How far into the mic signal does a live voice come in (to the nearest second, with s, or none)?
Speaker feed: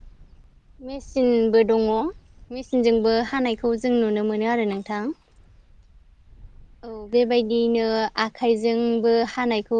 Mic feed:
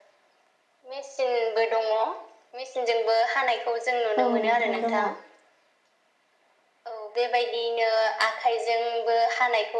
4 s